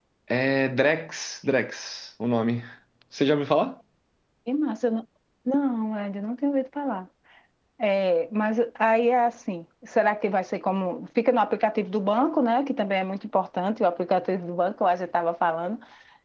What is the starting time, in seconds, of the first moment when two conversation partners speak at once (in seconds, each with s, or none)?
none